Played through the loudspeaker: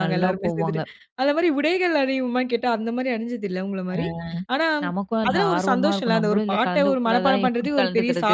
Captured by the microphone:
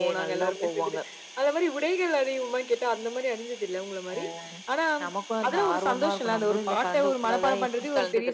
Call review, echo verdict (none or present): present